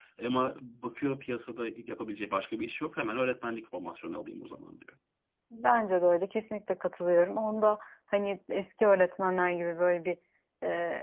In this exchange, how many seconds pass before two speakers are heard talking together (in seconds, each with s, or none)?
none